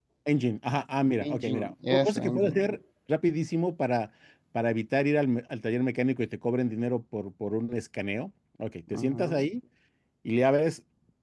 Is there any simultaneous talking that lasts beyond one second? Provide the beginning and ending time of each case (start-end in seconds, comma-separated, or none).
1.2-2.7